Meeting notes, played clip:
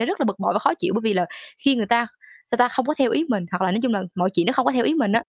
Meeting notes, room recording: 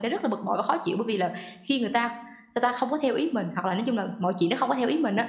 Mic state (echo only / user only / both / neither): echo only